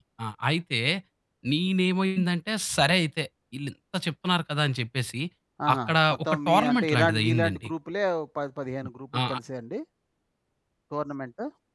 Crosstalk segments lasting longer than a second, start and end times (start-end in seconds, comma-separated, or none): 5.8-7.7